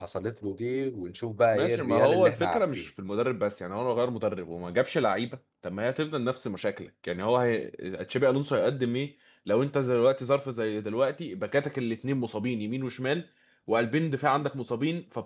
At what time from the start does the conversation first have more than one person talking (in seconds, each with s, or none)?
1.5 s